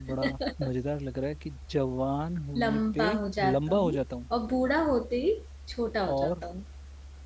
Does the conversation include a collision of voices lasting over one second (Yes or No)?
Yes